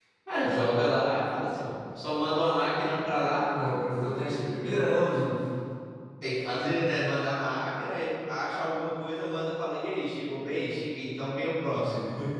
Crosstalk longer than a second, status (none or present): none